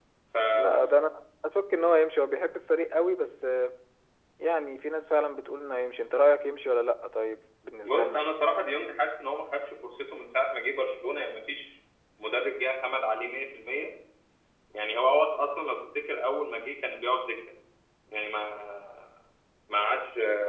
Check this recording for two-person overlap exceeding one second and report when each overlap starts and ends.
none

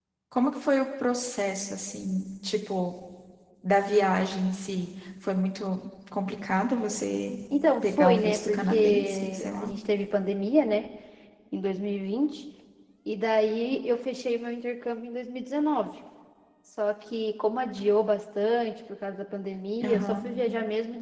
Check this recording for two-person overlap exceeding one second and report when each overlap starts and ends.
7.8-9.7

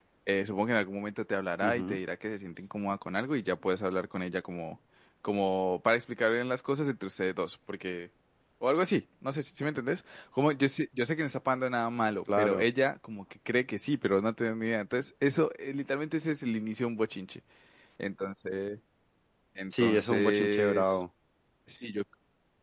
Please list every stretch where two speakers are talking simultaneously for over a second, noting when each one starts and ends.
19.7-21.0

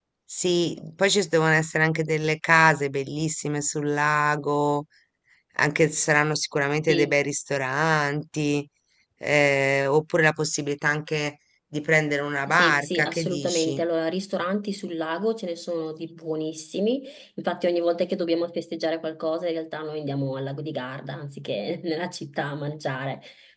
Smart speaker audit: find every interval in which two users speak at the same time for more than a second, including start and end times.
12.5-13.8

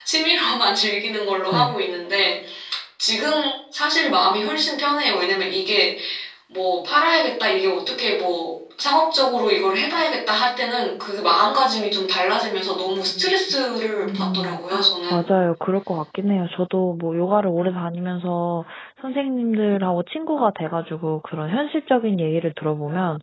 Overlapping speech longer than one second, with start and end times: 14.0-15.2

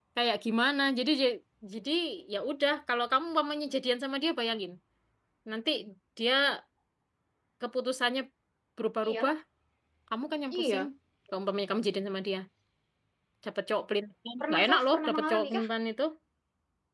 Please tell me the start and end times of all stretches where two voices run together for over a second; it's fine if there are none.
14.4-15.6

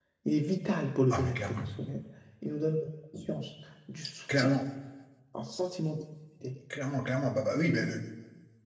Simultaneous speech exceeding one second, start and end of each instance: none

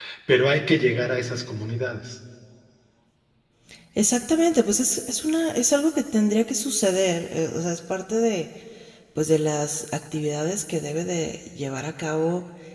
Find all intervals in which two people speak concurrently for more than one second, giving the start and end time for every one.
none

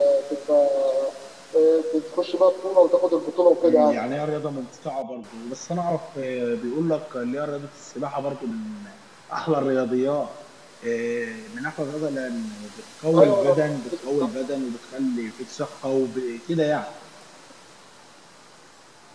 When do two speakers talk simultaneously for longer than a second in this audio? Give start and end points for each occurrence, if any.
none

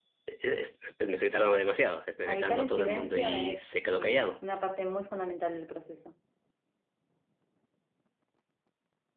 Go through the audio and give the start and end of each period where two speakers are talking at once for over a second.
2.3-4.4

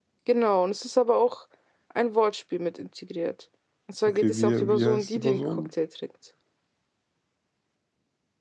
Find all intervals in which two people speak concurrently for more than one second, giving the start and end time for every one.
4.0-5.7

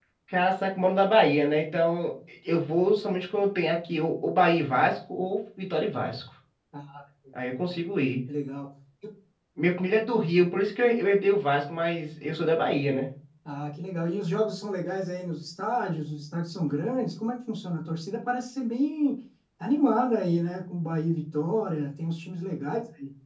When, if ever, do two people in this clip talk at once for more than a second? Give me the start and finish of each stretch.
none

